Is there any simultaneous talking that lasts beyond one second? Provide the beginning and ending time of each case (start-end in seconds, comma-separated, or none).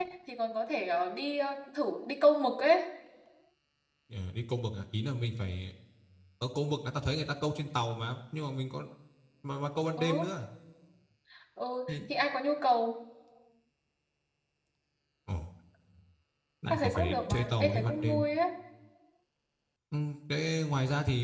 16.7-18.2